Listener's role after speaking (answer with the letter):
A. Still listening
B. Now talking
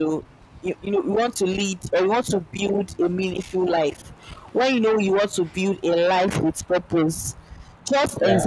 A